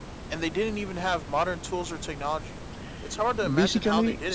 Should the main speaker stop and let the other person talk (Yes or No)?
Yes